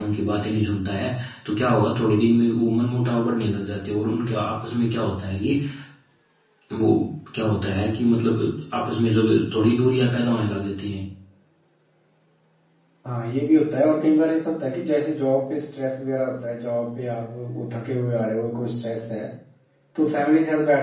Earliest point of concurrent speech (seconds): none

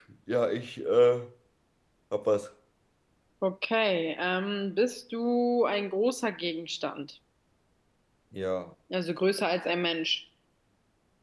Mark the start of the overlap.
none

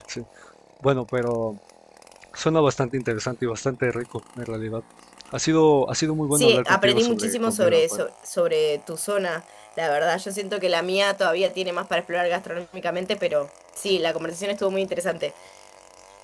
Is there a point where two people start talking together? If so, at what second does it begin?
6.3 s

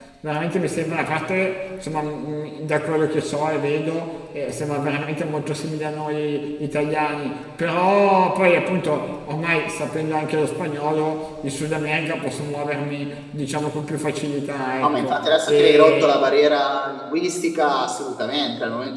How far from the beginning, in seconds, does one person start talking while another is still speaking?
14.8 s

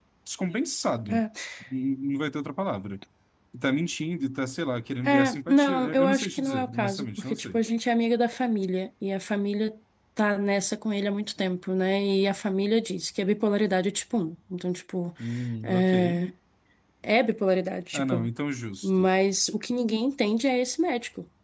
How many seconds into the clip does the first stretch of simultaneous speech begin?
5.0 s

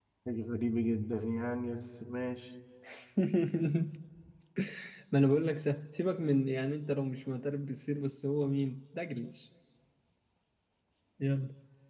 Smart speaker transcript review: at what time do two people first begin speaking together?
none

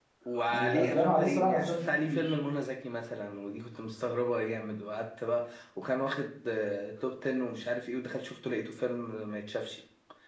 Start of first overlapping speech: 0.5 s

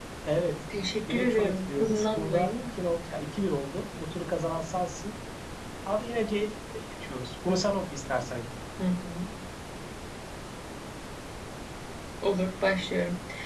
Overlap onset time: 0.9 s

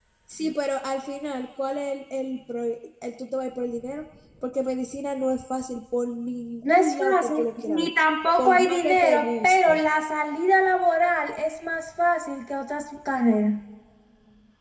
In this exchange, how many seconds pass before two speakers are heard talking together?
6.7 s

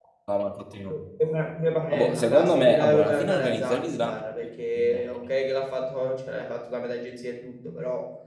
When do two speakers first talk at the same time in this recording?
1.9 s

